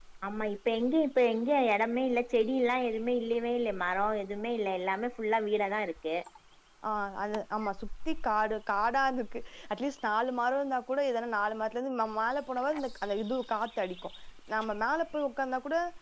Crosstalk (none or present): none